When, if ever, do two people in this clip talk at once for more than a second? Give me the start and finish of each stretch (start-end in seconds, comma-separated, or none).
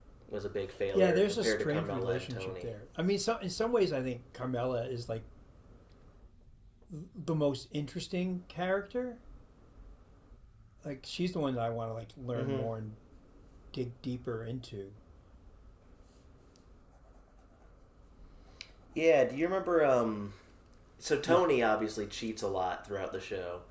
0.9-2.7